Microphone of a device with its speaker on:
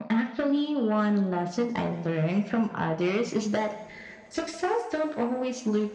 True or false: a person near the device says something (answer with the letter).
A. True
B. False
B